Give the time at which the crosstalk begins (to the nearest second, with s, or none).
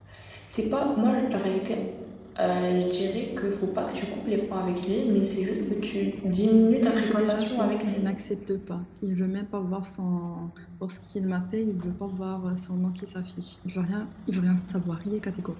7 s